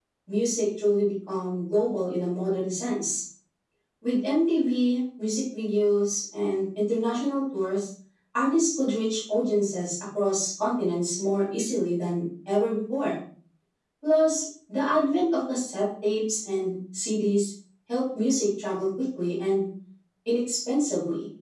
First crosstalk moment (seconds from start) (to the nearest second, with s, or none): none